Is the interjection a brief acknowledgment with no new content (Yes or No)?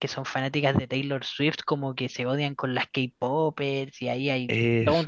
Yes